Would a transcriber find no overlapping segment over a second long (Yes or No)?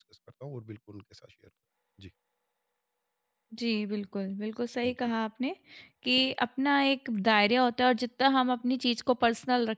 Yes